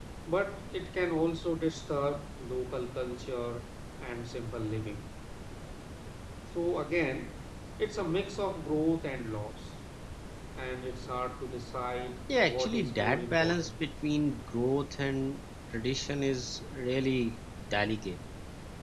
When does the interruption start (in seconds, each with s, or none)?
12.3 s